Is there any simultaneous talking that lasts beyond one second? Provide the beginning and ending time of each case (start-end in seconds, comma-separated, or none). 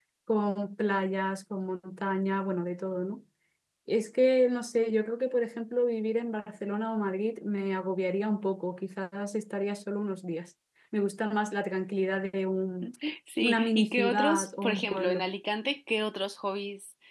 13.4-15.3